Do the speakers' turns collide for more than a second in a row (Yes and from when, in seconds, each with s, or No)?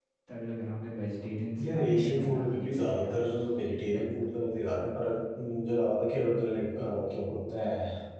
Yes, from 1.6 s